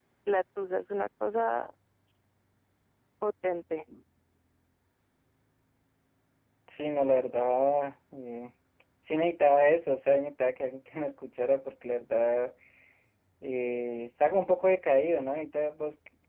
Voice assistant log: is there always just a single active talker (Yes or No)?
Yes